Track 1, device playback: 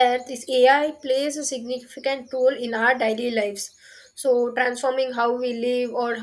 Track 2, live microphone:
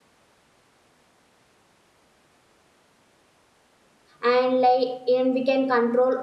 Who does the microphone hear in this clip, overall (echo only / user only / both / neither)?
user only